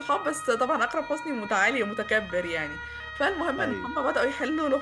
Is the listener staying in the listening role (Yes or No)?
Yes